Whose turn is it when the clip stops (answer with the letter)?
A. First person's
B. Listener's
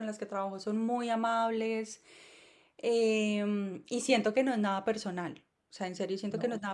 A